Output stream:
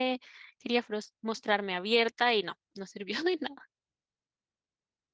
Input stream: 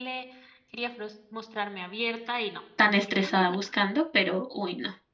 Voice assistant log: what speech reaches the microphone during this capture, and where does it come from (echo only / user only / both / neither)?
both